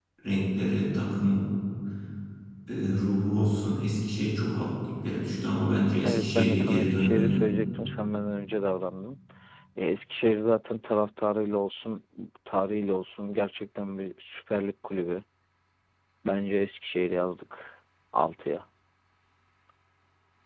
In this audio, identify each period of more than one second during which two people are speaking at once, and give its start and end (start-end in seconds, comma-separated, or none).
6.0-7.4